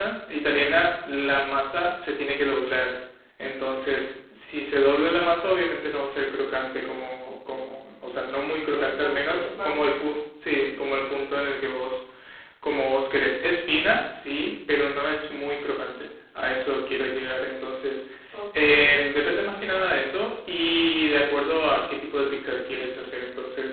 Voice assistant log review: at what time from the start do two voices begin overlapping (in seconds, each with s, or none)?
8.8 s